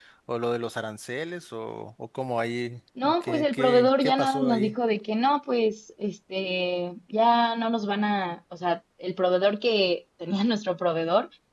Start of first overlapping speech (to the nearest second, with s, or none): 3 s